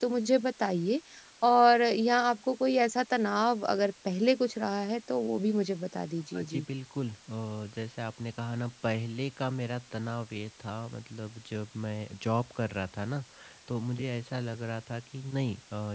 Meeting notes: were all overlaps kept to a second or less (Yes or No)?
Yes